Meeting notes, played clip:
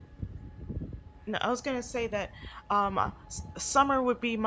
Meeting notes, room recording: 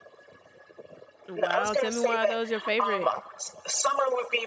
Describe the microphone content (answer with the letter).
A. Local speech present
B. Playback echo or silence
A